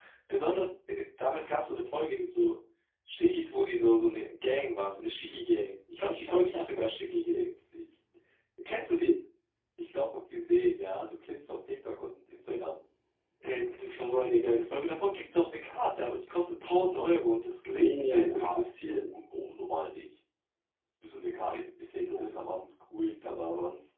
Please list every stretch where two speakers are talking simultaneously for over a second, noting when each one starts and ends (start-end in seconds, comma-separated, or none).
6.0-7.4, 17.8-19.1